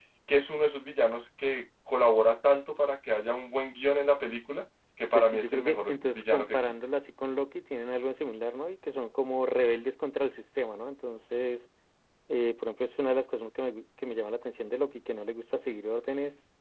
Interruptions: present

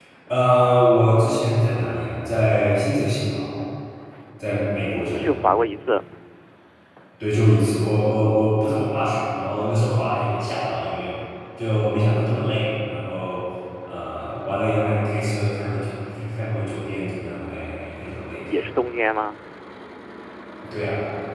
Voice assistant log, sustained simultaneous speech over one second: none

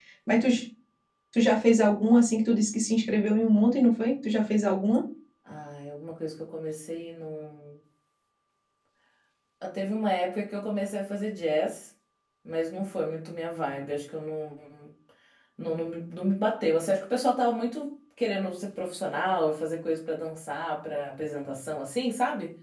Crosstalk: none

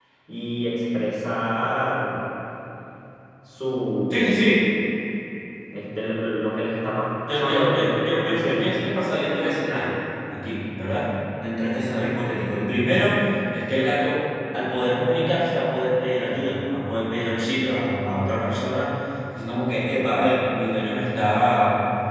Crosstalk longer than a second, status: present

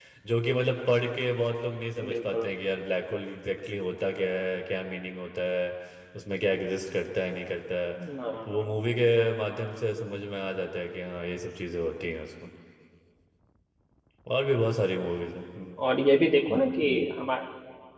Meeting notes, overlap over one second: none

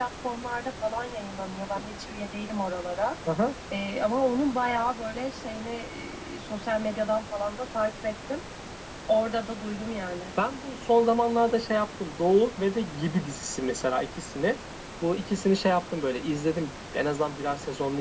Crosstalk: none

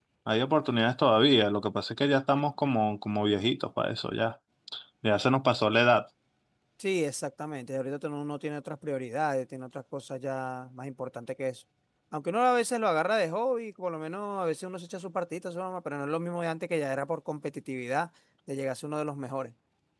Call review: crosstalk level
none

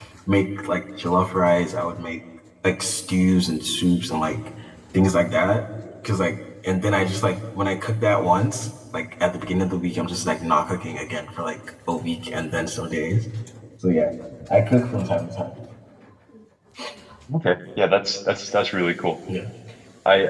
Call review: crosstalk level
none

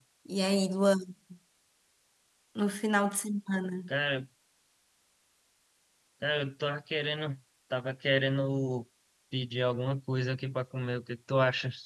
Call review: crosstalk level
none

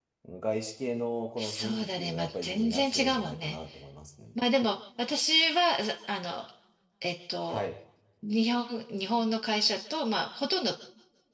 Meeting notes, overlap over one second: present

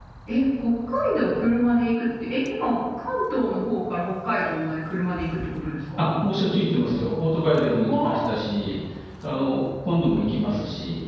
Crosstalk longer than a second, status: none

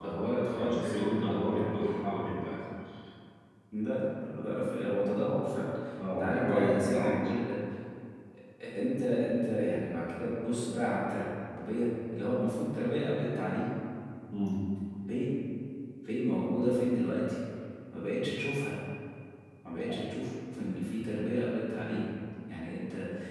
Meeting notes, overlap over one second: present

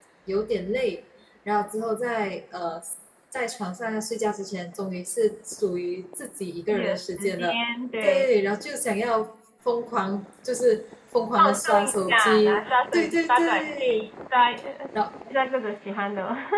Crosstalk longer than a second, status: present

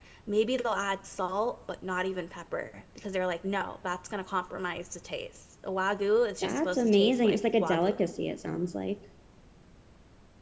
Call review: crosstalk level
present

